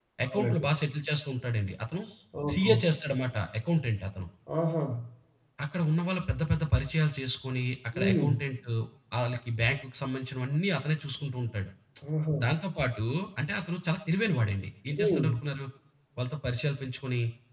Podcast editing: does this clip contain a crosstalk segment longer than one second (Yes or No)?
No